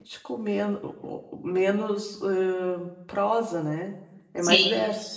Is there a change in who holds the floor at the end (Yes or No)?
Yes